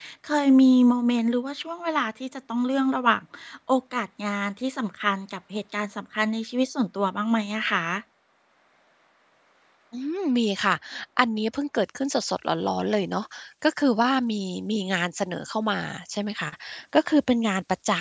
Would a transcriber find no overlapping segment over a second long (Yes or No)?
Yes